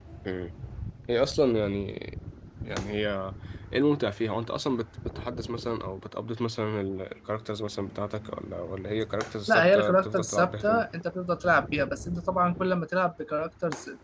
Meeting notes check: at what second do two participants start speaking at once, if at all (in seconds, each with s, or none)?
9.5 s